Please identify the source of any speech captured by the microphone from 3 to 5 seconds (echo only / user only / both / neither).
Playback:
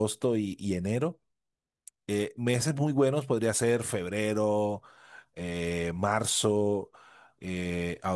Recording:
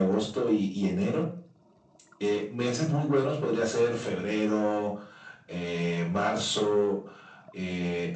echo only